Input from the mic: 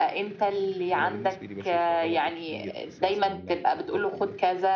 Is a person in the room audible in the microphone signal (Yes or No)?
Yes